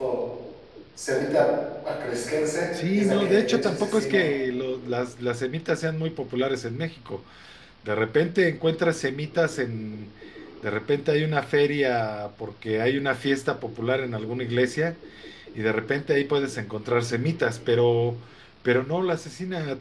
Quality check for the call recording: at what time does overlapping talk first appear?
2.7 s

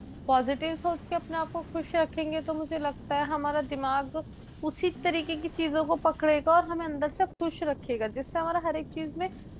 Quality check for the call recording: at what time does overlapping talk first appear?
none

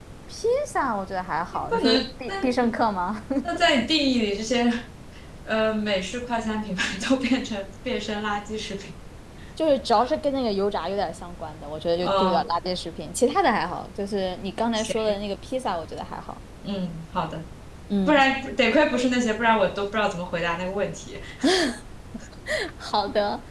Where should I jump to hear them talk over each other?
1.5 s

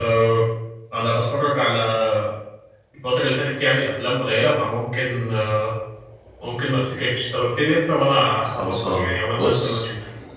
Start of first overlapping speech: 8.6 s

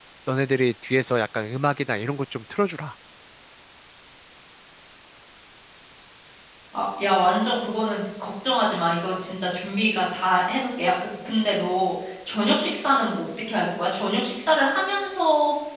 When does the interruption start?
none

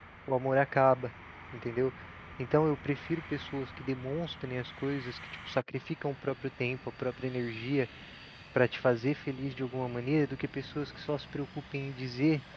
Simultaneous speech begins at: none

